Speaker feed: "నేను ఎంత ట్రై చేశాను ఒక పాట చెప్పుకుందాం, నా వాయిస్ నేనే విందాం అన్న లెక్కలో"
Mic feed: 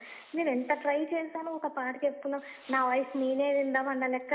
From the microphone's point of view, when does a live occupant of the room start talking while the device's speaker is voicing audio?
none

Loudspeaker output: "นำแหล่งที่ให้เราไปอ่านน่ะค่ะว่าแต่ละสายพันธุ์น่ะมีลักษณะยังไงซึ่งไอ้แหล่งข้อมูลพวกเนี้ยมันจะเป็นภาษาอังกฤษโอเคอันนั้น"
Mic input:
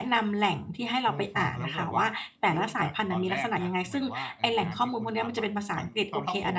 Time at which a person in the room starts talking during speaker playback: 1 s

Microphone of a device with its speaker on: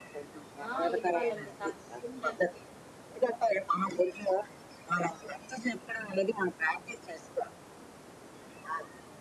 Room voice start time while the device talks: 1 s

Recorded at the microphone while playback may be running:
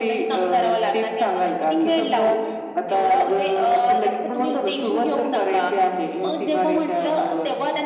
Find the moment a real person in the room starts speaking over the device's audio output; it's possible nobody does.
none

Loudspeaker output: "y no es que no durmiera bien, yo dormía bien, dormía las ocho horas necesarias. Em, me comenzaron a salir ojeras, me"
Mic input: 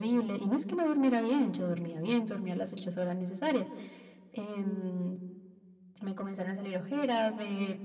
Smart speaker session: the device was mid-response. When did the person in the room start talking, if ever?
none

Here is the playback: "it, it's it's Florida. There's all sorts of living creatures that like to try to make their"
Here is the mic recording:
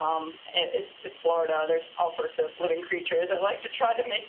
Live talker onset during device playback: none

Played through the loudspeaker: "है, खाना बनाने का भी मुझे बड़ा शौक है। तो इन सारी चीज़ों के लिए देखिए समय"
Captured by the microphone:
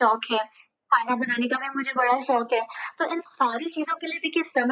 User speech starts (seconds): none

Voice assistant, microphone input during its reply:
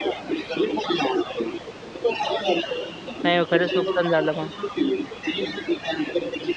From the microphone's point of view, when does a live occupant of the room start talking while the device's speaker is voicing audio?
3 s

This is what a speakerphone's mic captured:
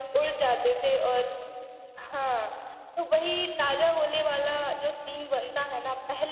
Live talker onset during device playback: none

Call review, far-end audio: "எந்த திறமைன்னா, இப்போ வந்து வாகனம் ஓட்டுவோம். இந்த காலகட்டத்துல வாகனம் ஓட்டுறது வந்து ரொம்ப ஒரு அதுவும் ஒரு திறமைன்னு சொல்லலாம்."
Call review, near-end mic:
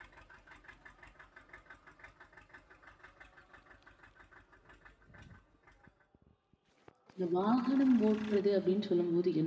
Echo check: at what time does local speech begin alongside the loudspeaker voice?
7 s

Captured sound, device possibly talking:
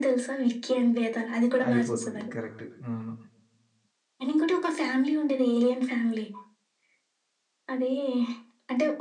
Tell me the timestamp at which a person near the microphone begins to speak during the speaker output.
2 s

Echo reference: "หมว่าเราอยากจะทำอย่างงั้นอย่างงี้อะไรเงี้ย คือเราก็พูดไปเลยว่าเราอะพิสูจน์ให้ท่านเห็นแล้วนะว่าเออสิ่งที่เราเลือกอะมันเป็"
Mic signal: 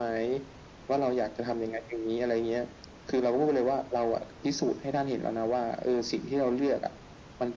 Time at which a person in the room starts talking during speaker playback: none

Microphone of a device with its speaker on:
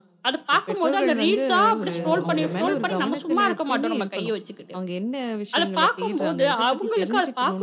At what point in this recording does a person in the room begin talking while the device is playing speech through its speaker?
2 s

